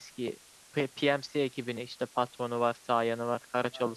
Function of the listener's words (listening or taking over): taking over